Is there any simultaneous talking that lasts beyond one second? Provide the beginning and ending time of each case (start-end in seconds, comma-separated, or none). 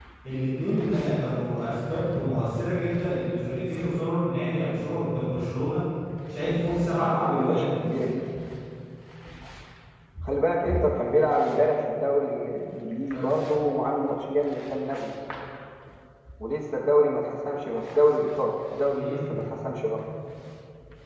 6.4-7.7